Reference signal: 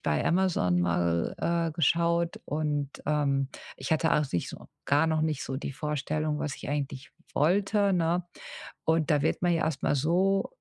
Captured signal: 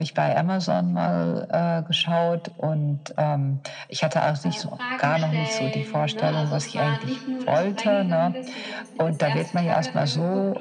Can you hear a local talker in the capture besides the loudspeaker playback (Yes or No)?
Yes